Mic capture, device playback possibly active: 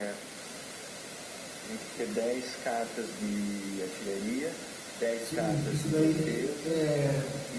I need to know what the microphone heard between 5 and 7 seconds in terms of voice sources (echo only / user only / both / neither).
both